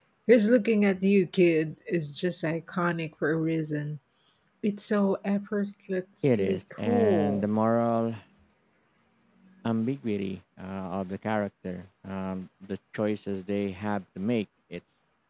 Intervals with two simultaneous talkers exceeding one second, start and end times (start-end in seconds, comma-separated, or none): 6.2-7.5